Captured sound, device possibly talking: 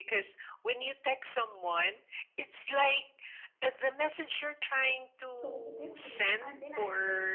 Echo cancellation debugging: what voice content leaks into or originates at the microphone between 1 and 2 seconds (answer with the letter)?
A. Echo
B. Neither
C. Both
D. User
A